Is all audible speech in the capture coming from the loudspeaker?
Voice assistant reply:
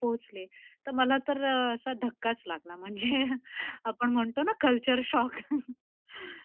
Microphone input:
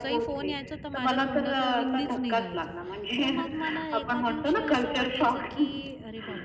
No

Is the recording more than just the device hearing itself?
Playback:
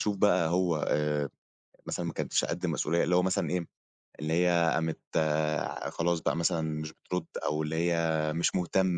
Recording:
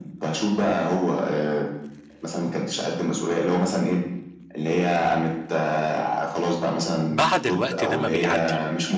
Yes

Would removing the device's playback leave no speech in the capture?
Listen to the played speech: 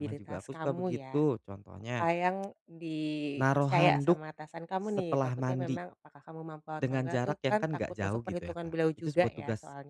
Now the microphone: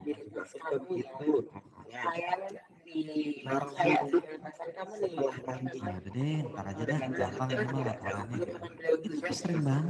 No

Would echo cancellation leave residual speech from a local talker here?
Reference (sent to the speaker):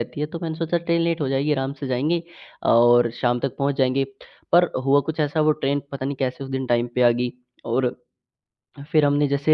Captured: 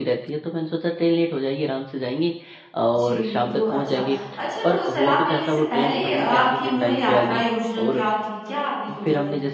Yes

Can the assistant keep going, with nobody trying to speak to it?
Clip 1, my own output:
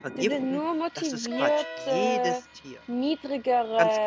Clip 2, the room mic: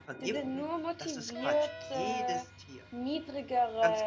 Yes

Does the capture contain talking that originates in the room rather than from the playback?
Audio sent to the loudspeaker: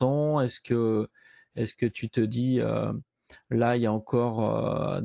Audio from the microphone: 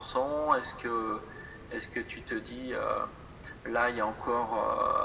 No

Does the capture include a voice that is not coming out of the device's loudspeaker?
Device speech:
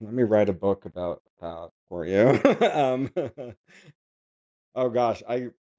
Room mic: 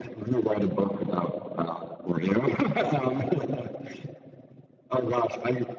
No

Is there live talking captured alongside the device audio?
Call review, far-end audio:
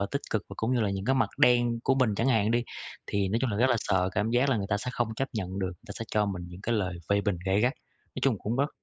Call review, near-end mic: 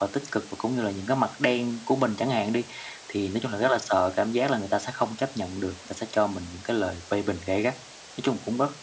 No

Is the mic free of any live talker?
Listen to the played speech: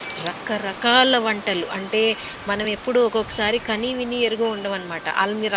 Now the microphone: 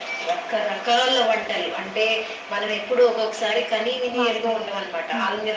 No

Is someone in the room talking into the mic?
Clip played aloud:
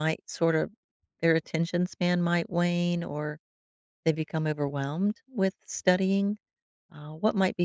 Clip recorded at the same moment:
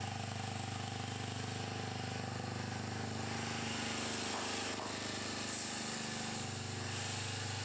No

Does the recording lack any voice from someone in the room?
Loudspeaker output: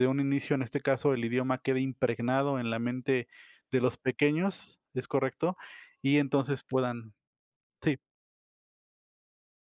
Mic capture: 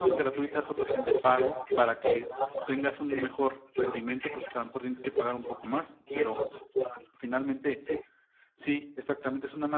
No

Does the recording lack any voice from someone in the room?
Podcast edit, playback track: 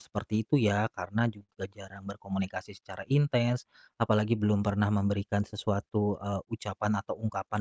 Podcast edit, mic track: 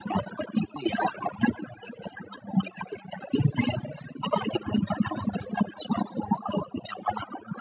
Yes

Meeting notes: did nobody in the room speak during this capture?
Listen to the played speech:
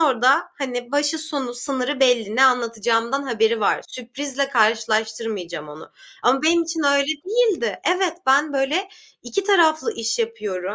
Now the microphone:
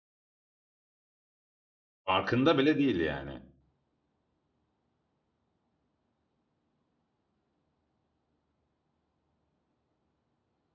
No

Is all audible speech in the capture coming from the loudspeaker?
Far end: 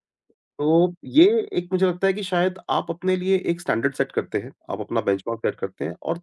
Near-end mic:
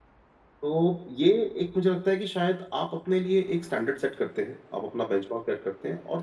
Yes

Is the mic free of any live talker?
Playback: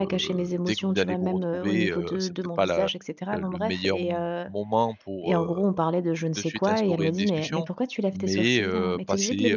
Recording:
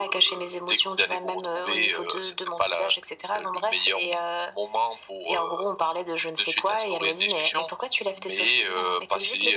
Yes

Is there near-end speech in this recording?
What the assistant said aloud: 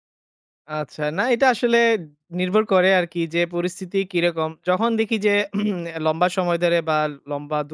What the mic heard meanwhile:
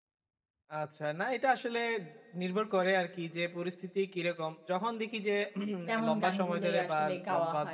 Yes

